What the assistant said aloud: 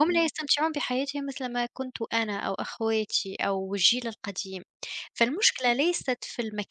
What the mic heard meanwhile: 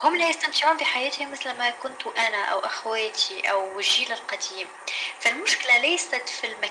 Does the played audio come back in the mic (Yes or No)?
Yes